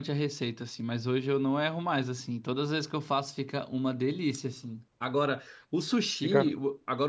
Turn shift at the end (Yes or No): No